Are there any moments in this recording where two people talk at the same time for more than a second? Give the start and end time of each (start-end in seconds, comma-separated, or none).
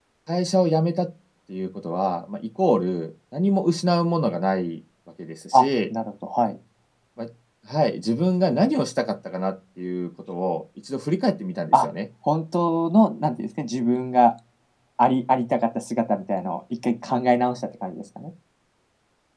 none